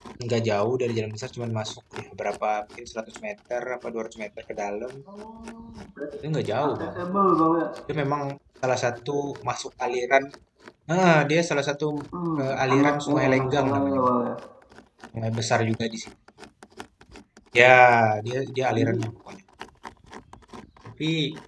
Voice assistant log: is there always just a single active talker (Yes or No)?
No